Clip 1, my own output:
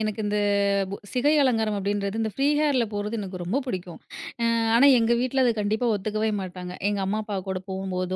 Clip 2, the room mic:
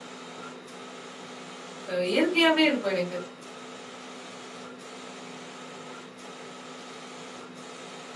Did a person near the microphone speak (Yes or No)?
Yes